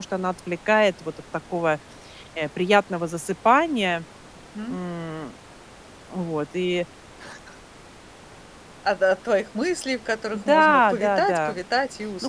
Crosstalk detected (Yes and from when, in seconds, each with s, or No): Yes, from 10.3 s